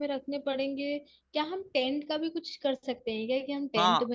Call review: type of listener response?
taking over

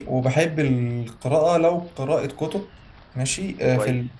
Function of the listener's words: listening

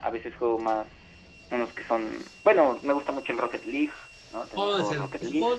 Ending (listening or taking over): taking over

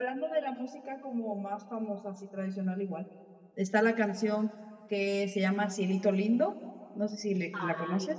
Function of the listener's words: taking over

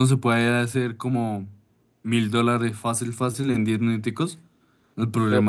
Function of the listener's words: listening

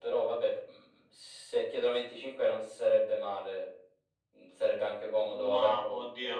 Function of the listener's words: taking over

